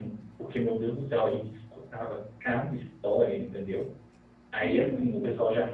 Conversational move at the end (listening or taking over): listening